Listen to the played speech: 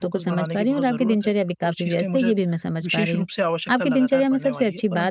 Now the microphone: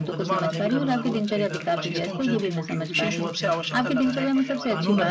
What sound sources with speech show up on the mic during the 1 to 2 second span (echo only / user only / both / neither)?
both